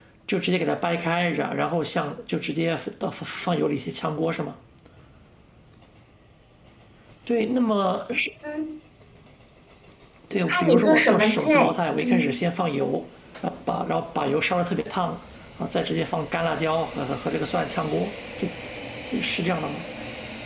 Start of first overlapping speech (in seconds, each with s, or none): 10.5 s